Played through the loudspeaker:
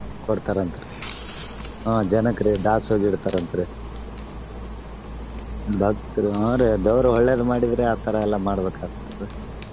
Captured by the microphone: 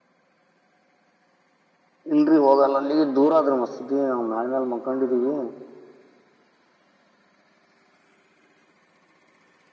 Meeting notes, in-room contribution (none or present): present